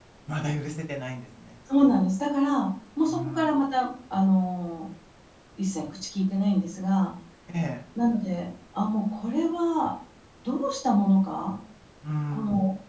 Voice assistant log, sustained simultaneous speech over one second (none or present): none